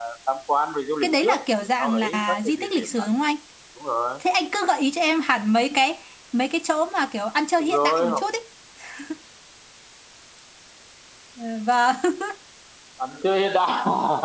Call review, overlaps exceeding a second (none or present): present